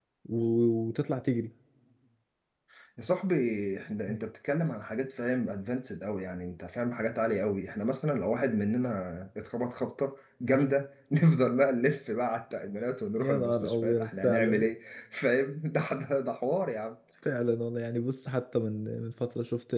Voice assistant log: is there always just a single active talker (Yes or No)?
No